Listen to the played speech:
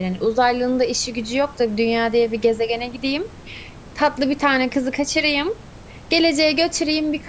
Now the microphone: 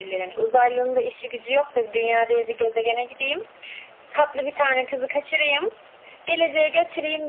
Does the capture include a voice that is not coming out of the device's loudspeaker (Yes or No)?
No